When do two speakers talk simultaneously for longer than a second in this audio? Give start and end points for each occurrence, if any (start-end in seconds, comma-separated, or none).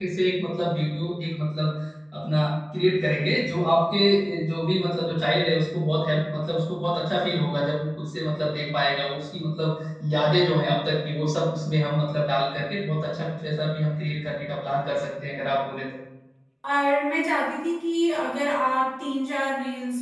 none